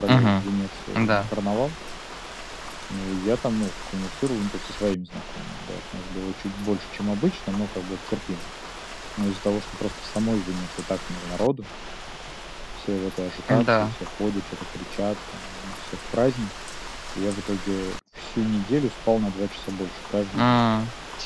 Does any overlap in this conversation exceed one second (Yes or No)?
No